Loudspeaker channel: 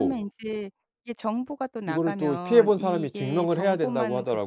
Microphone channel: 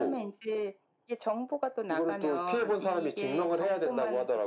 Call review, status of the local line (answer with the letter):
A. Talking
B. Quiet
B